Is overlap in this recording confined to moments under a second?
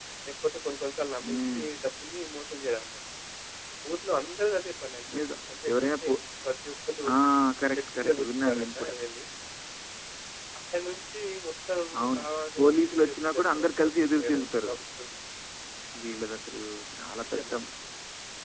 No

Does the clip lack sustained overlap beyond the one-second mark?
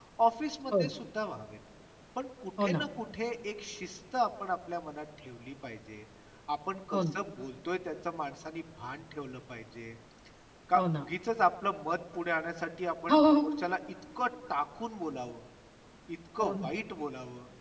Yes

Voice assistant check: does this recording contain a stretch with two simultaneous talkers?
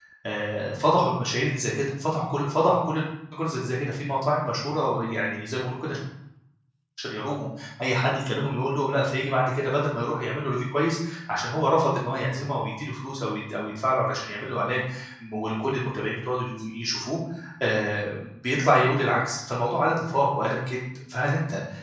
No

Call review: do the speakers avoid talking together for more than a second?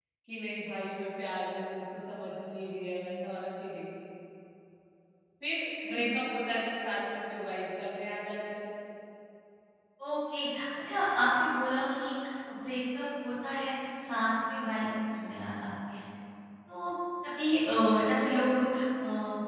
Yes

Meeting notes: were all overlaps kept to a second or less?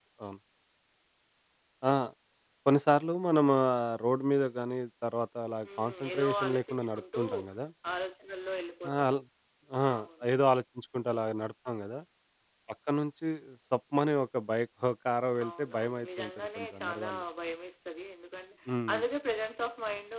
No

